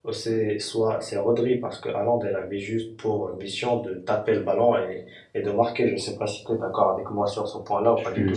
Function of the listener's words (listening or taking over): taking over